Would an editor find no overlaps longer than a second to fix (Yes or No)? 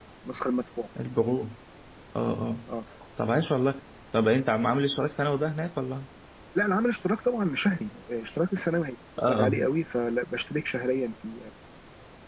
Yes